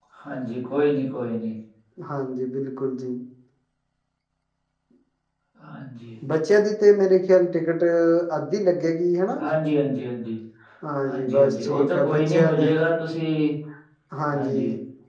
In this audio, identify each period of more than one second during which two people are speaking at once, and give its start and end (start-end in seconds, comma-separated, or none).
11.1-12.7